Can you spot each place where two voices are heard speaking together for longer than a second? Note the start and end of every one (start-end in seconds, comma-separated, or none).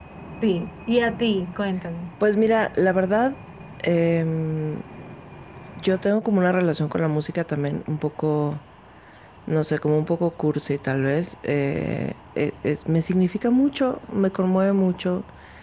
none